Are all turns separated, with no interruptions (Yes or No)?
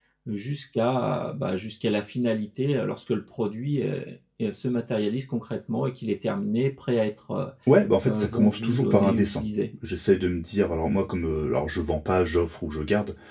No